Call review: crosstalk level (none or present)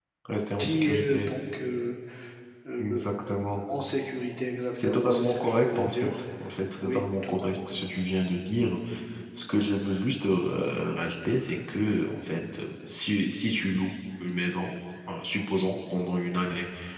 present